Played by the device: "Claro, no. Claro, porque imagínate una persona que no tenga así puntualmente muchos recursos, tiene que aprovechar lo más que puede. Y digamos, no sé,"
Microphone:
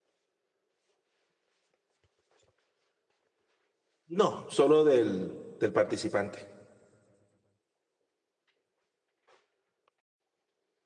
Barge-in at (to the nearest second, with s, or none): 4 s